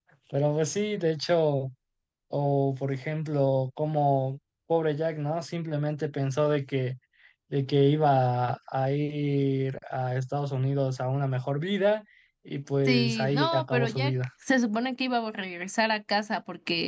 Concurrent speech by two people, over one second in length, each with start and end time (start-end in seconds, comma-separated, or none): 12.8-14.1